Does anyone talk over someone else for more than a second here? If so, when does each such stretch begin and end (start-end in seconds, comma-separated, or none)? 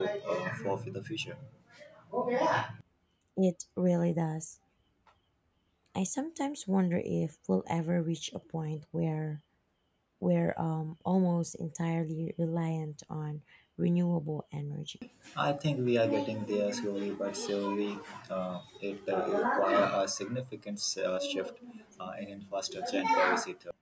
none